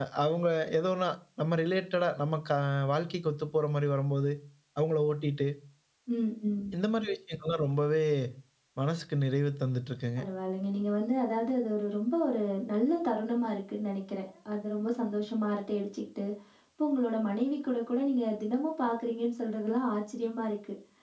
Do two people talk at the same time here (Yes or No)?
No